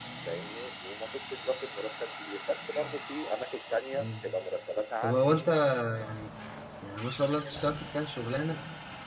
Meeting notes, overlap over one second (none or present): none